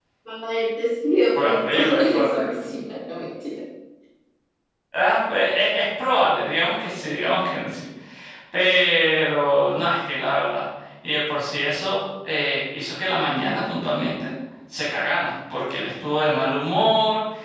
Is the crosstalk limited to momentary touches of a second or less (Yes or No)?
No